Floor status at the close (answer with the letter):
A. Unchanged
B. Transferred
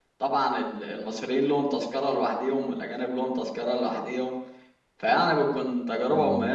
A